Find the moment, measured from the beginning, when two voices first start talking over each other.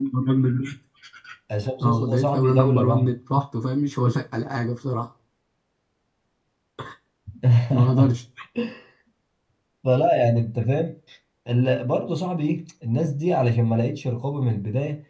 1.8 s

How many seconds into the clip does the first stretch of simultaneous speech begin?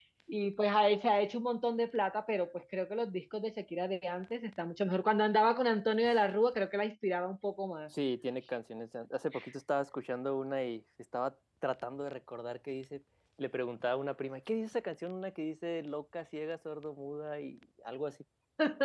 none

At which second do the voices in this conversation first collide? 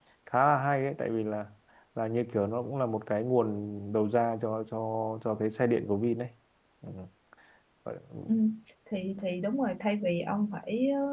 none

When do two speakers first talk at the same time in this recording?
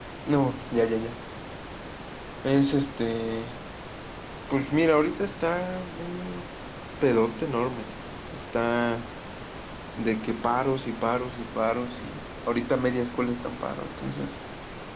none

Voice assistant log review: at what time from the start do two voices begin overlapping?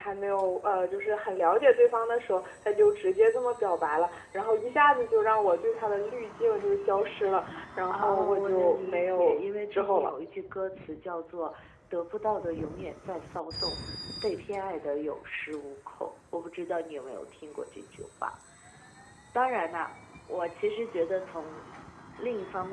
7.9 s

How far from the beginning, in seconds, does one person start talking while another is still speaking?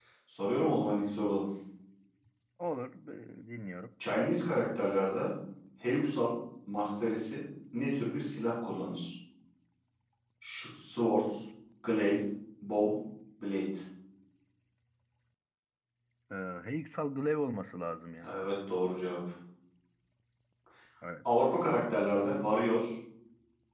none

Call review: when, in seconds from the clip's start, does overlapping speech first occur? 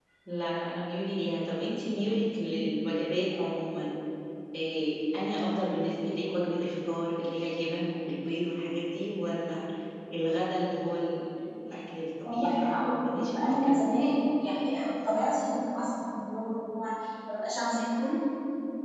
12.2 s

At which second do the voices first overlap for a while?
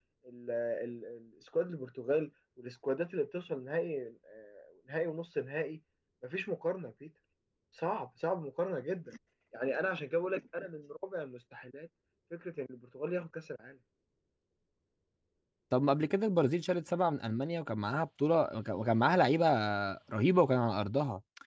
none

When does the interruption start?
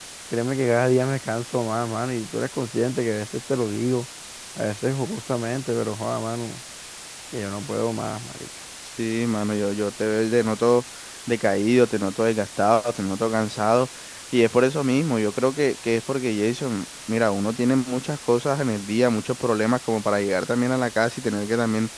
none

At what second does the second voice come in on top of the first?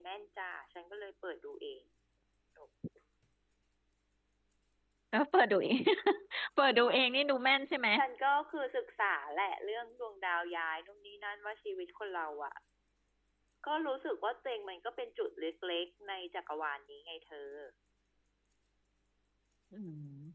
none

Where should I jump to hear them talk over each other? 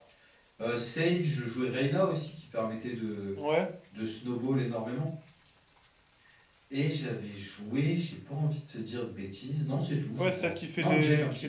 10.2 s

